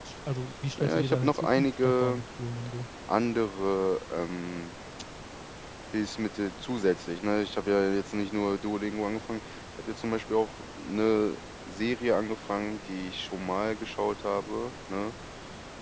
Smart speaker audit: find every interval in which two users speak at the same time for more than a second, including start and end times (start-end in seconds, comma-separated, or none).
0.8-2.2